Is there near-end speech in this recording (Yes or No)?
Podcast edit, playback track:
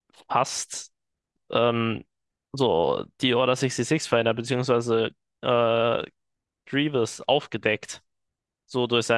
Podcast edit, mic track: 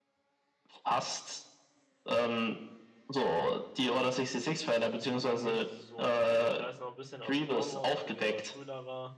Yes